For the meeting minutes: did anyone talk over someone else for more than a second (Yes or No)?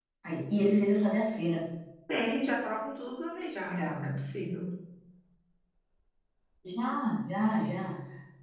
No